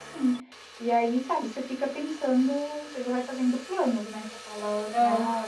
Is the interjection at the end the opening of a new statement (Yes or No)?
No